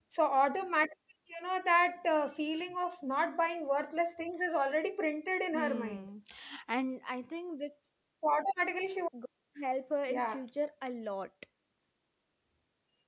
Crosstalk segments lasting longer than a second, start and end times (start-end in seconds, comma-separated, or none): none